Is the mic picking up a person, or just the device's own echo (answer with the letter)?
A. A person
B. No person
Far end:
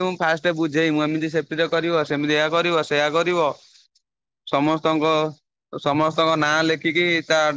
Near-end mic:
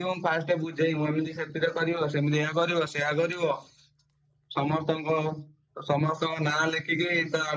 B